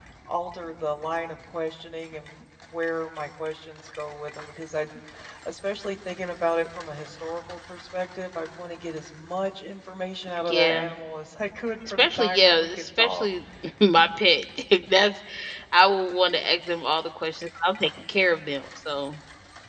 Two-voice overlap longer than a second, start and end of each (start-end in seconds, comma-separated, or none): 11.9-13.3